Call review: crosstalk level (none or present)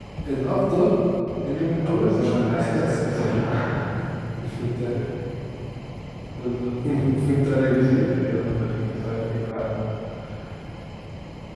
present